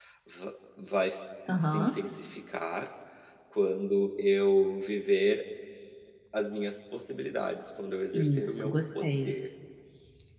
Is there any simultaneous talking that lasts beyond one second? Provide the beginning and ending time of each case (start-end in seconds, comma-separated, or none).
8.1-9.3